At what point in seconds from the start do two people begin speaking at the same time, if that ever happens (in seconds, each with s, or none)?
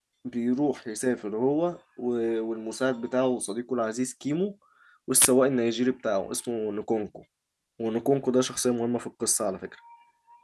none